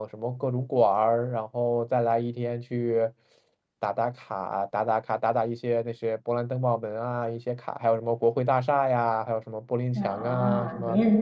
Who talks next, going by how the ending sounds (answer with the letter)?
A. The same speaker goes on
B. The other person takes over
B